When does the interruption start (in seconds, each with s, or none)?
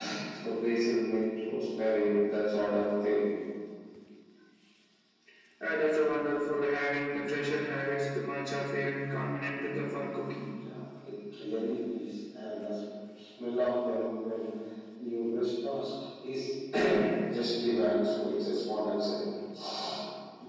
none